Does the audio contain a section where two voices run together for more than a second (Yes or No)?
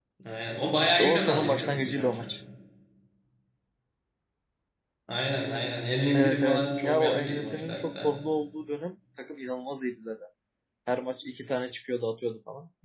Yes